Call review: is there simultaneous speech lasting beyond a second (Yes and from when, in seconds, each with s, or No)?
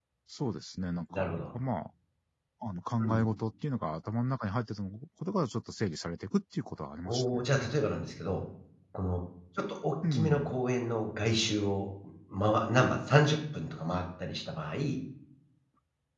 No